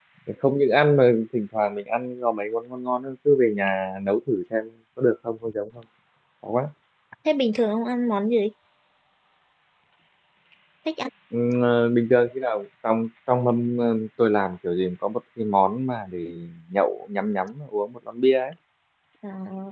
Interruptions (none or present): none